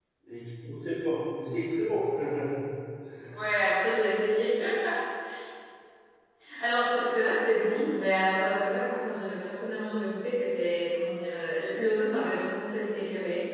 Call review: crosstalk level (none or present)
none